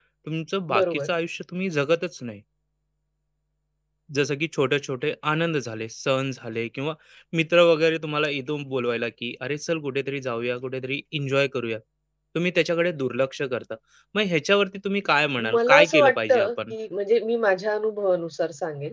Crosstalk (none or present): present